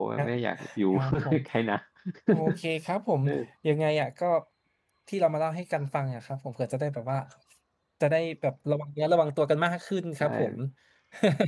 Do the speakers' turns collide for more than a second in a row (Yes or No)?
No